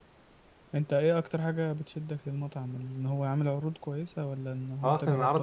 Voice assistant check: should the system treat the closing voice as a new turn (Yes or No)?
Yes